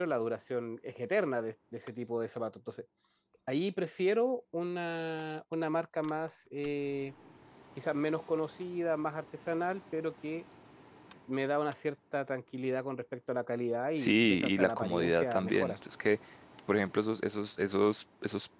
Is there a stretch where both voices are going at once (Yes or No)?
Yes